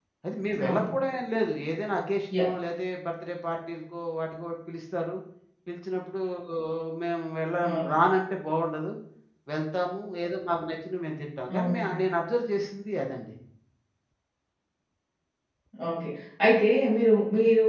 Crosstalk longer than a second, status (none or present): none